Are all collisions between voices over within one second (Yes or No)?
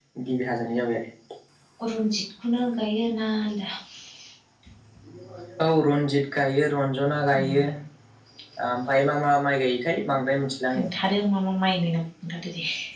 Yes